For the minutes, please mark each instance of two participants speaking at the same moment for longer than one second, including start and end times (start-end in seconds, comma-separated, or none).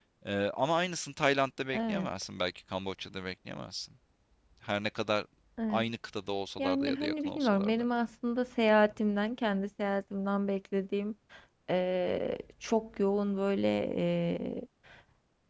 6.6-7.8